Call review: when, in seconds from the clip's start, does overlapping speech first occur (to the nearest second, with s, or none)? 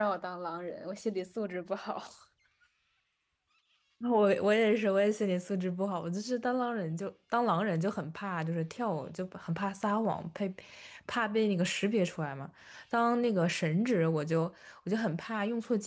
none